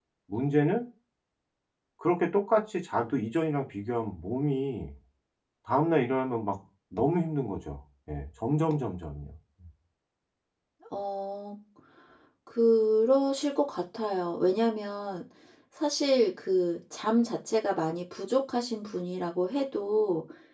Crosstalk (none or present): none